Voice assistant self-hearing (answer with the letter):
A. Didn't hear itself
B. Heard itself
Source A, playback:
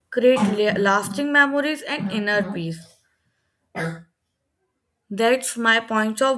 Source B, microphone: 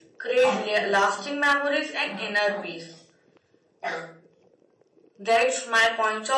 B